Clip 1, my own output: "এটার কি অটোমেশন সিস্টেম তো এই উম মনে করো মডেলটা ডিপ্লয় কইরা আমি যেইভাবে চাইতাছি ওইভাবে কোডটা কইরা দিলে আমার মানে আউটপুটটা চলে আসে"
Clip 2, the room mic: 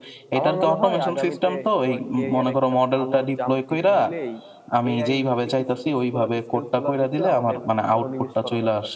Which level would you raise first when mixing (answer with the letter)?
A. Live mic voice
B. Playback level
A